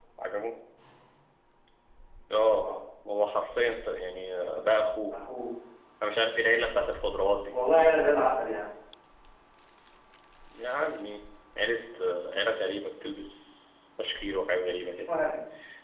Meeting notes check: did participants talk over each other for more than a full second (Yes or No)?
No